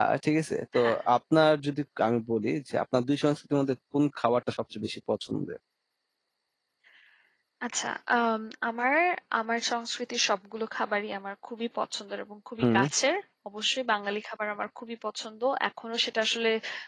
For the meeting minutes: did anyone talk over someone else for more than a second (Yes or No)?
No